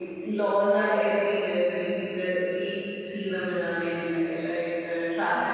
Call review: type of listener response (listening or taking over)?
taking over